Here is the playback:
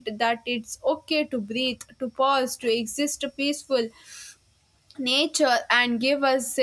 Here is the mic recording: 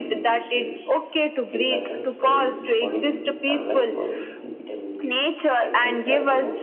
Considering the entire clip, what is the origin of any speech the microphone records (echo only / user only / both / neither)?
both